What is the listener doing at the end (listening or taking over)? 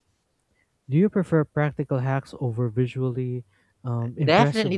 taking over